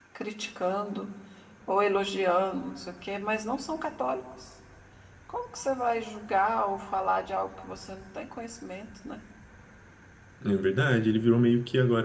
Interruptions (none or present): none